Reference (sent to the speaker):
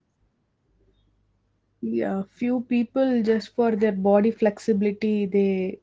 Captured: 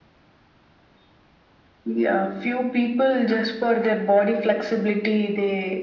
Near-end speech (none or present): none